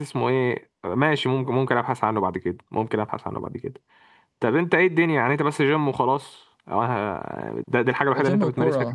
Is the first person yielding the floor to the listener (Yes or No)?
Yes